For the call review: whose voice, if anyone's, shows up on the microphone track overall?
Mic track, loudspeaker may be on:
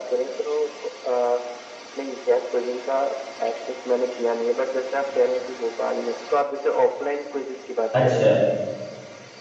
both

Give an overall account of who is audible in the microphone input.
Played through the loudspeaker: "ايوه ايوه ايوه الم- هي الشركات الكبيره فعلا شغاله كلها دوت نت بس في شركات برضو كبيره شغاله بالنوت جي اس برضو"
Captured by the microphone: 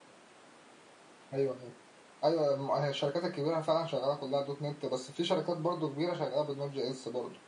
echo only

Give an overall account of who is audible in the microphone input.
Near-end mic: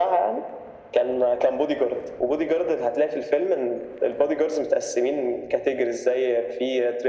echo only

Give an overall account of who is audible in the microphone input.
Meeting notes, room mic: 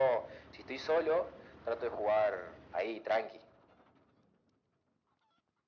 echo only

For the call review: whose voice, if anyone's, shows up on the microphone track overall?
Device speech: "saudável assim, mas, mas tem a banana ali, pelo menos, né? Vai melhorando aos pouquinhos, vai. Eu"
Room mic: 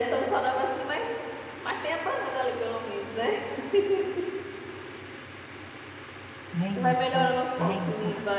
both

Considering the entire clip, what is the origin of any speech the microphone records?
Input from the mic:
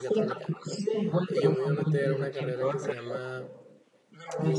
both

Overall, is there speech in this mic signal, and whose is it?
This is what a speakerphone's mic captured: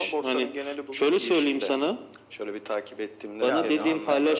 both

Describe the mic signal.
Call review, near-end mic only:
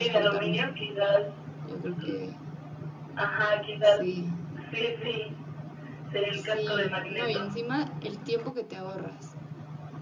both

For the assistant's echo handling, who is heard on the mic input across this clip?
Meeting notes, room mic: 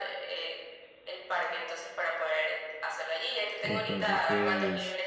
both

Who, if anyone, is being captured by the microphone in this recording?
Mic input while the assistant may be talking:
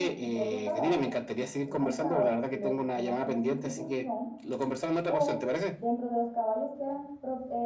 both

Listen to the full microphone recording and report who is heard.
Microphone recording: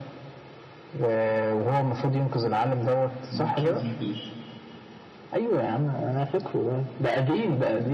both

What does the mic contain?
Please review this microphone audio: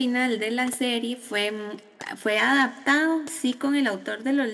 echo only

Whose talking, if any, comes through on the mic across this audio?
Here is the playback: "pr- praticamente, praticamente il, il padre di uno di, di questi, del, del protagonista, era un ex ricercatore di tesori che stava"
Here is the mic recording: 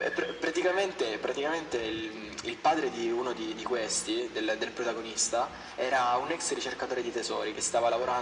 echo only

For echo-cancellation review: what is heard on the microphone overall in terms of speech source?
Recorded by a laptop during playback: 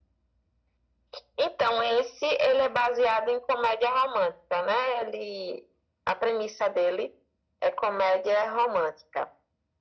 echo only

